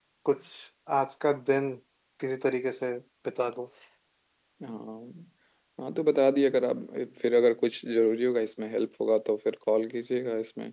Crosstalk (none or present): none